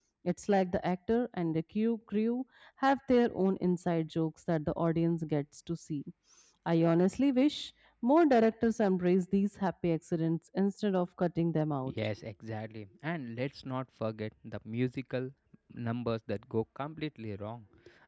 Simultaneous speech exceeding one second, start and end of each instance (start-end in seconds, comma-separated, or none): none